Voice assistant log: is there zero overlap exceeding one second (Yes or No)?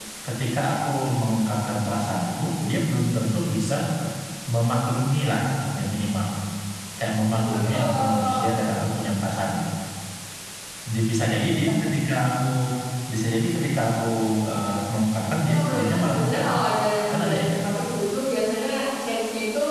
No